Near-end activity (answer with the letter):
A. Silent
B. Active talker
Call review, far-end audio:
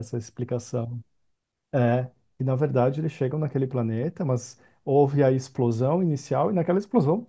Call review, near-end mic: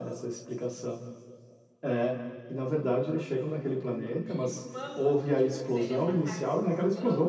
B